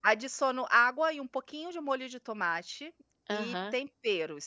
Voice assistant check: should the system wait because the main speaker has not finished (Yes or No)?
Yes